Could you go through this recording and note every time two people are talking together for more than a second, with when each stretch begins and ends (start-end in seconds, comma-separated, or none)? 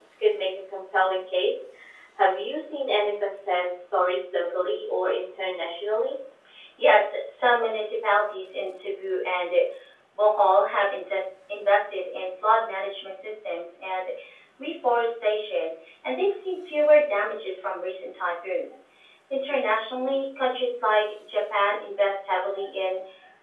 none